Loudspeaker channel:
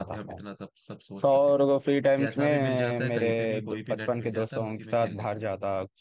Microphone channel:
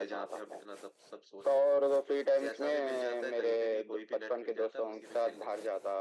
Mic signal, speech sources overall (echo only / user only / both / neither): echo only